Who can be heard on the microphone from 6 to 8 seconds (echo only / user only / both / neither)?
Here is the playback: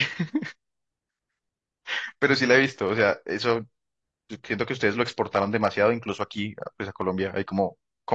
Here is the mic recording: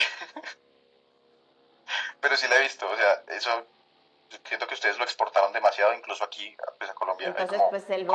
both